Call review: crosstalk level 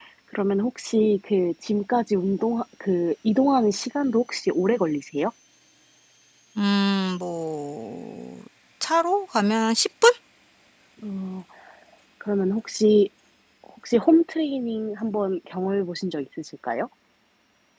none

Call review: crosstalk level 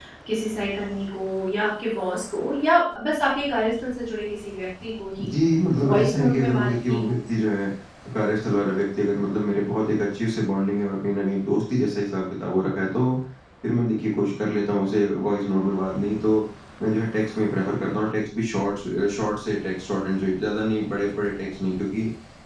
present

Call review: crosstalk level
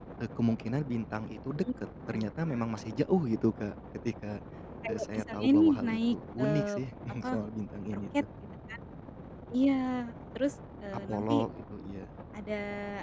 present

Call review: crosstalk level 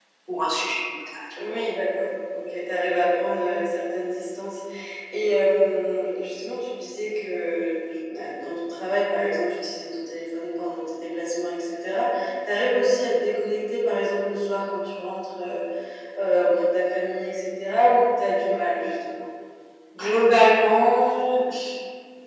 none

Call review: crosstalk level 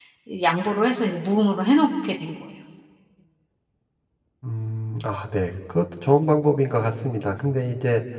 none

